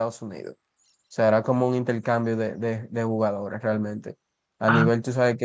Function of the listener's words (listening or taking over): listening